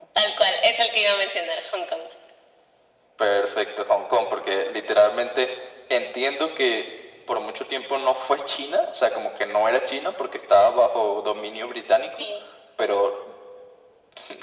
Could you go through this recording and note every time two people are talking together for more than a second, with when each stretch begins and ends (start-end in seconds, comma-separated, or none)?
none